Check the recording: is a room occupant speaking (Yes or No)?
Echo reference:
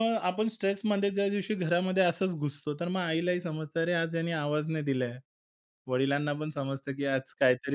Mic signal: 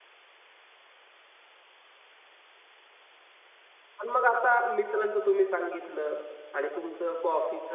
Yes